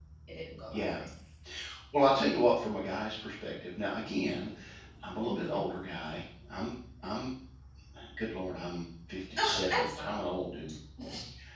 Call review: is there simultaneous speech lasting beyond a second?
Yes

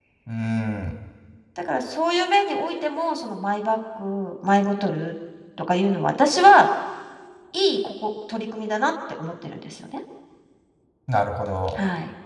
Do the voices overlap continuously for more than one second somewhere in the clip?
No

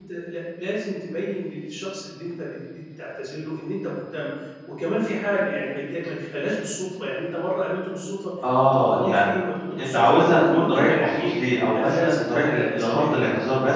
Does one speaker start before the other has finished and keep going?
Yes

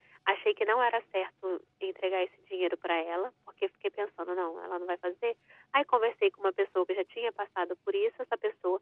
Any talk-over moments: No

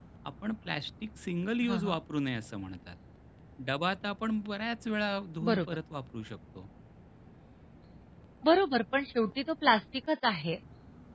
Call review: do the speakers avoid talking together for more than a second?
Yes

